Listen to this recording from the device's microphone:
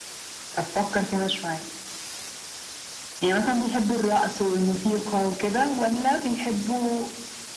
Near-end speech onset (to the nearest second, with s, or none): none